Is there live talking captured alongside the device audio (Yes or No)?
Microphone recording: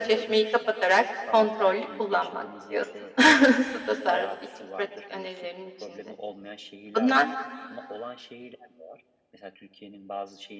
Yes